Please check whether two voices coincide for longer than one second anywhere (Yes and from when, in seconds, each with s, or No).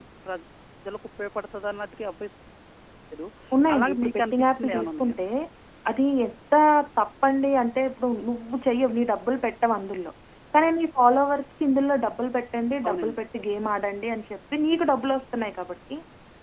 Yes, from 3.7 s